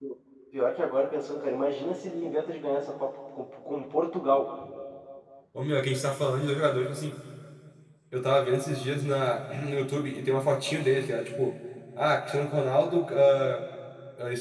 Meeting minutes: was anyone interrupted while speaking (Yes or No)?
No